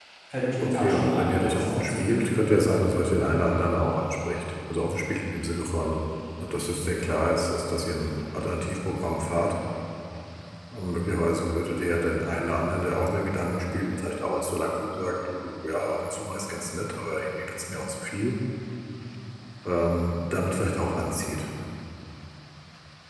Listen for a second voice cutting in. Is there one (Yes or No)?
Yes